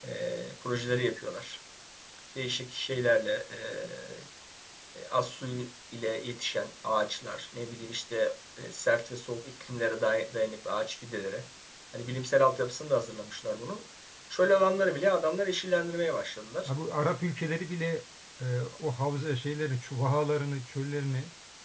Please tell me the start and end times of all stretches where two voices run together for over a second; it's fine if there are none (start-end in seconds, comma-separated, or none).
none